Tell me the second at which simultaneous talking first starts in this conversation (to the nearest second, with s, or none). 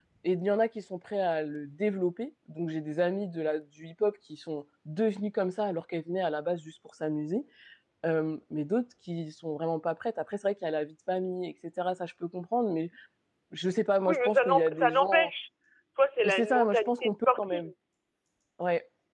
14 s